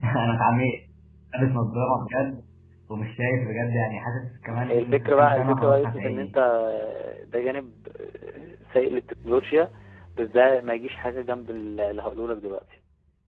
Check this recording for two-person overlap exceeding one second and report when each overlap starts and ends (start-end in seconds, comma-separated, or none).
4.6-6.3